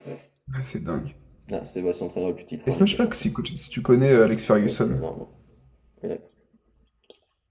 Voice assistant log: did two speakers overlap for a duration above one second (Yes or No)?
No